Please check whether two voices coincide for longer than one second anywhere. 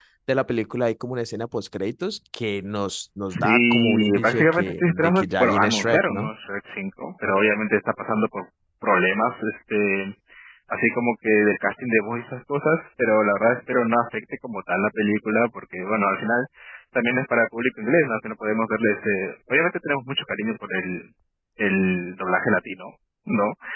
Yes, from 3.3 s

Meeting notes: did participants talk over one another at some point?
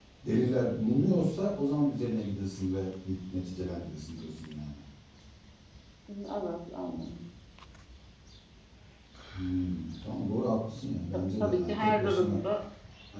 Yes, from 11.1 s

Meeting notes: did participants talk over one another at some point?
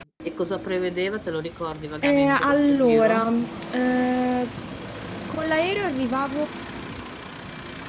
Yes, from 2.0 s

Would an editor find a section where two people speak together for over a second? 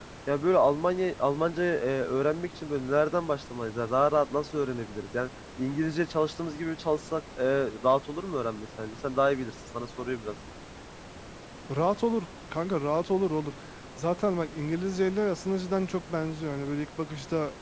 No

